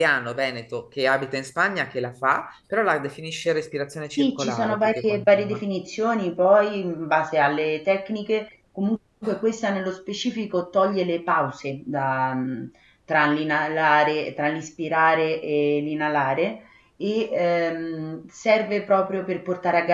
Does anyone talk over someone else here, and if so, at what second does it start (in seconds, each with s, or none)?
4.1 s